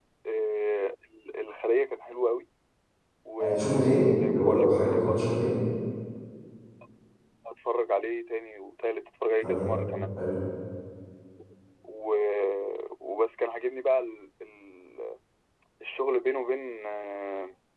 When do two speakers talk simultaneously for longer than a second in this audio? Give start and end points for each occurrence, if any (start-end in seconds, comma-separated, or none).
3.4-5.3